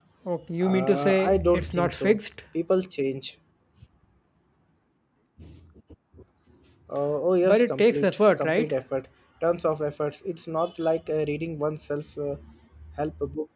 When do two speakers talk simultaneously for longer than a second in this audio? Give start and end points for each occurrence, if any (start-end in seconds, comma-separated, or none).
0.6-2.2, 7.4-8.7